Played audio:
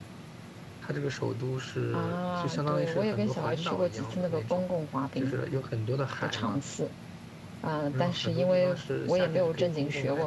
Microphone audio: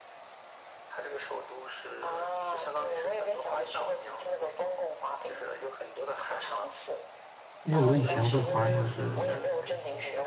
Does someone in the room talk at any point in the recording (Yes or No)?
Yes